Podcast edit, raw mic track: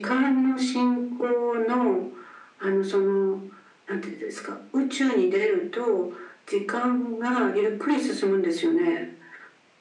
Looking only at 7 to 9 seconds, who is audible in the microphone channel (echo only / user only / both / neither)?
echo only